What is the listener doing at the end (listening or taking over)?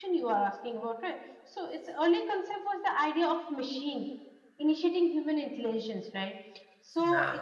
listening